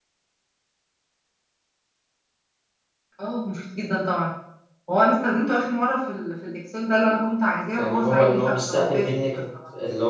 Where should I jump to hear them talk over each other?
8 s

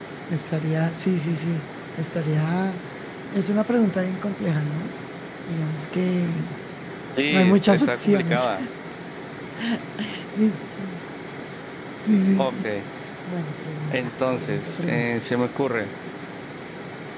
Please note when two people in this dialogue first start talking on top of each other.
7 s

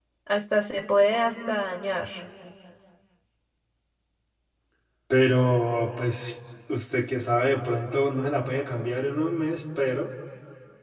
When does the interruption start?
none

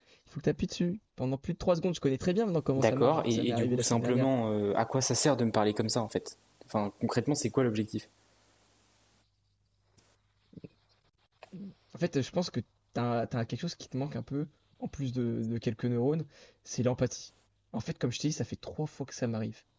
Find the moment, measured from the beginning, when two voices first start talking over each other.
3 s

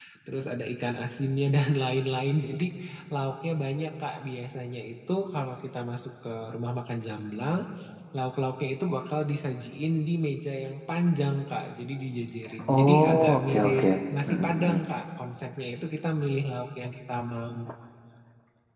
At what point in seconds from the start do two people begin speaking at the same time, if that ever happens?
12 s

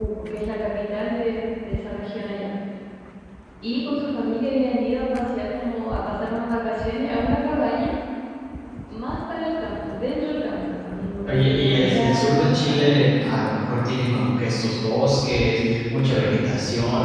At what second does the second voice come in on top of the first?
11 s

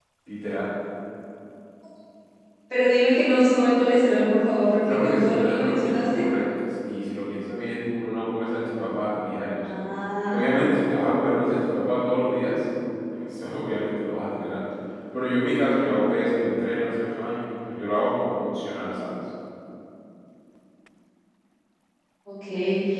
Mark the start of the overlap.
5 s

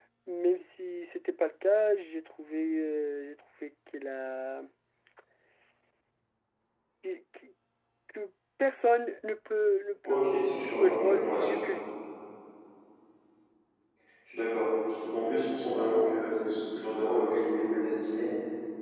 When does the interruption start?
10 s

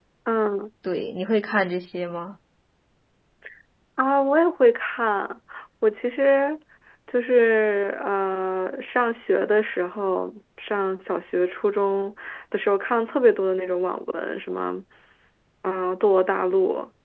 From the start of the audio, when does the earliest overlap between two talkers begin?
none

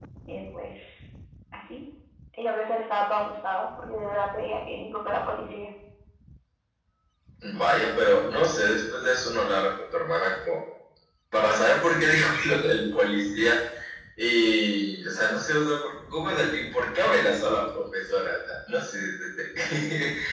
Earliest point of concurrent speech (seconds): none

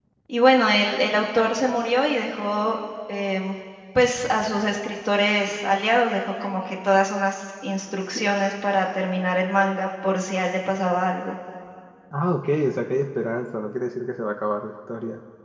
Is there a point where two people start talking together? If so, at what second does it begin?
none

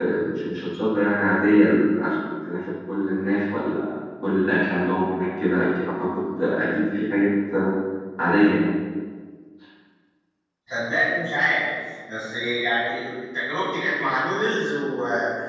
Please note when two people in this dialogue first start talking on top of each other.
none

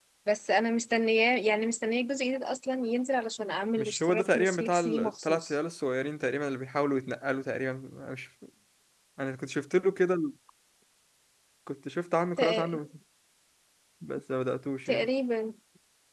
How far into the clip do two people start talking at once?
4 s

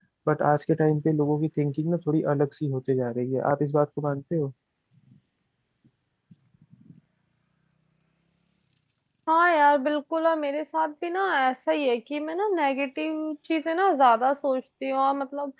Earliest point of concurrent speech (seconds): none

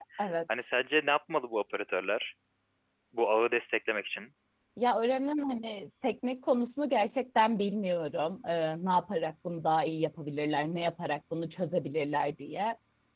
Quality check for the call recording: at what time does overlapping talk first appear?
none

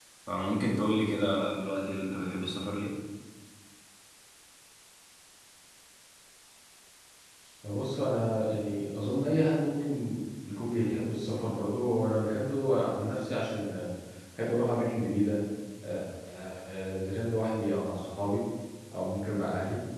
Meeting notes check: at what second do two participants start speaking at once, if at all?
none

